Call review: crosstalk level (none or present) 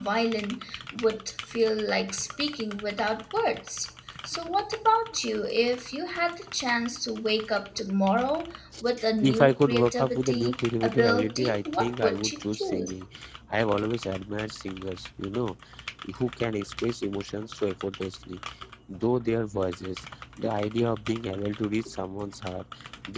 present